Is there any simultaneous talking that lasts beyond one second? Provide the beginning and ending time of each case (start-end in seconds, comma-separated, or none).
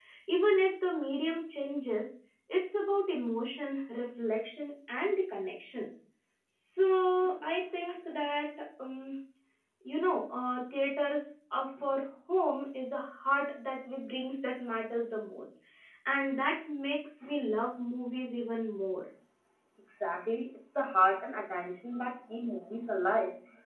none